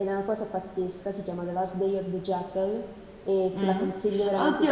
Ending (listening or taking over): taking over